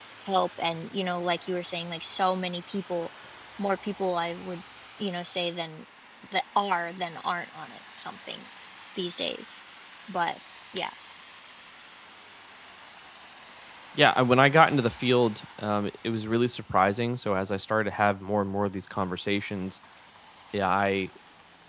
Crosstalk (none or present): none